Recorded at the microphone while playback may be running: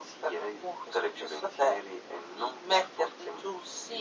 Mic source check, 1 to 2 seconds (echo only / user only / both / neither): echo only